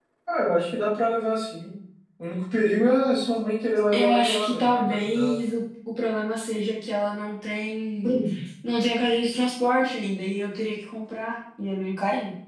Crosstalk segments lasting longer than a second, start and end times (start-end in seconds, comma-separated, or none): 3.9-5.3